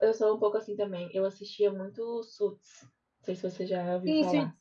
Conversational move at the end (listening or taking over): taking over